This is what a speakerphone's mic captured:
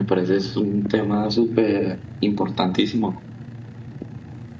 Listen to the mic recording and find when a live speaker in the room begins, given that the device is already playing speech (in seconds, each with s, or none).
none